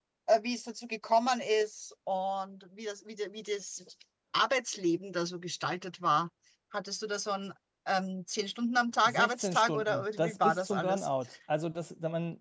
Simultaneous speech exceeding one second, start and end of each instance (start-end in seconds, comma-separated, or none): 9.0-11.1